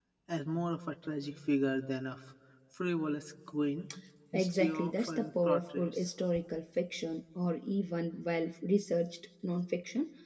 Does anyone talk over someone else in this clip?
Yes, from 4.3 s

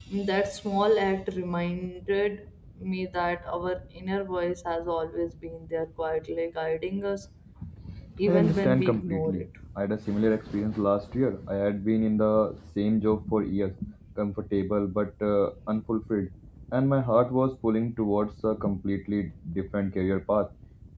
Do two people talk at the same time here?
Yes, from 8.2 s

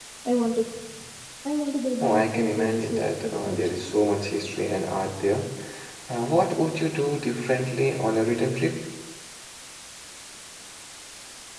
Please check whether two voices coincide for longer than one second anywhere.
Yes, from 2.0 s

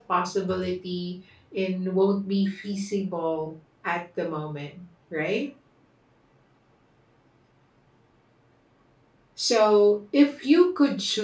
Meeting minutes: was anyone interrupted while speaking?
No

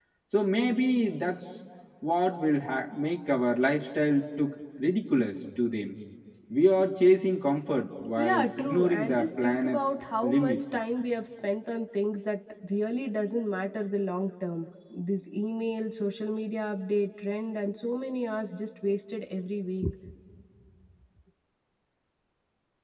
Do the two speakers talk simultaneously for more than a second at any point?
Yes, from 8.2 s

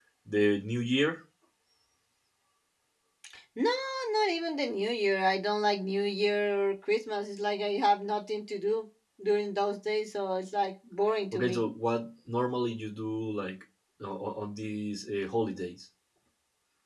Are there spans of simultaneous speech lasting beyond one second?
No

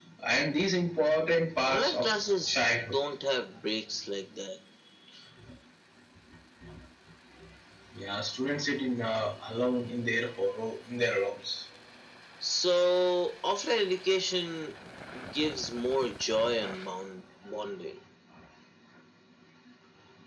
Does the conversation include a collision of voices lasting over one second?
Yes, from 1.6 s

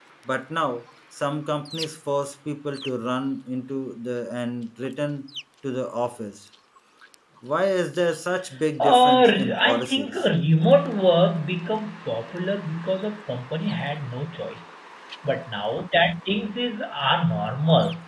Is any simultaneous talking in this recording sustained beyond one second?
Yes, from 8.8 s

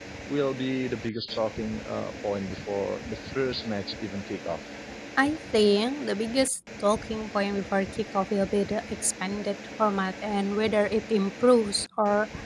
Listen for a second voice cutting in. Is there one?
No

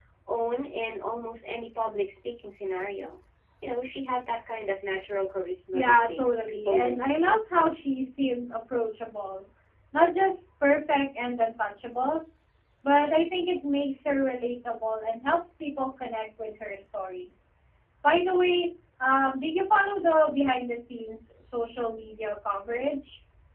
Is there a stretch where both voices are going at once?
Yes, from 5.7 s

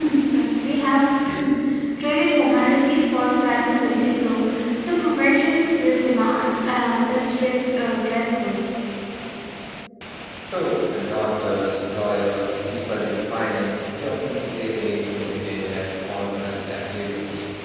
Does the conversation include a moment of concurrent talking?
No

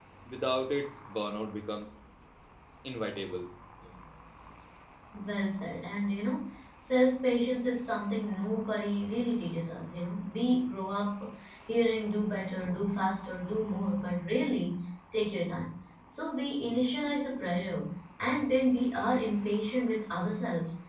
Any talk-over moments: No

